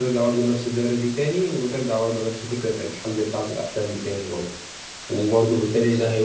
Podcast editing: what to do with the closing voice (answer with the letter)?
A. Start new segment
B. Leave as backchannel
B